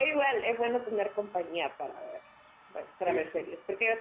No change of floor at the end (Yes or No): Yes